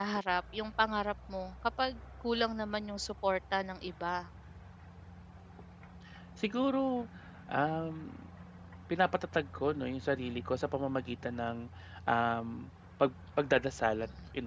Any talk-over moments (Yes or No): No